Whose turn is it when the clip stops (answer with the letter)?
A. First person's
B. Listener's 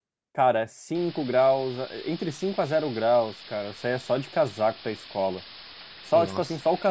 A